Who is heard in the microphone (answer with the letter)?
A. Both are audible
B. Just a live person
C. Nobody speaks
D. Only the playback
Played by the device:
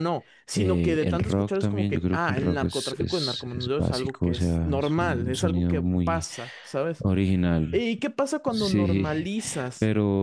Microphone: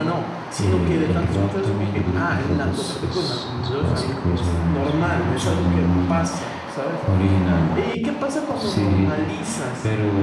D